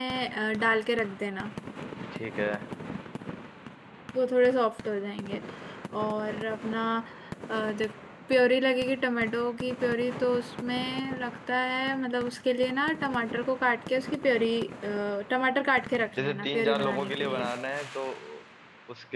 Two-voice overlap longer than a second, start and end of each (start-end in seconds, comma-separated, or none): 16.2-17.5